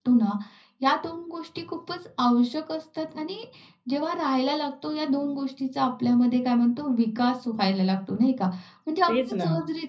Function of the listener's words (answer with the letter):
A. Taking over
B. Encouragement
B